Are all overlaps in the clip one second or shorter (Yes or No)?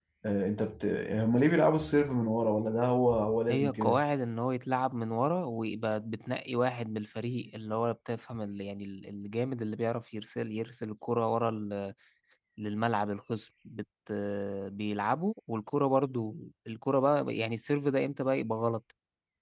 Yes